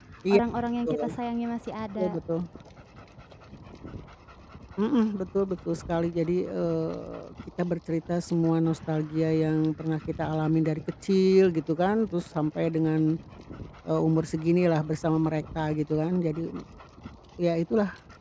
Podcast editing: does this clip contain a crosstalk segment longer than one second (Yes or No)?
No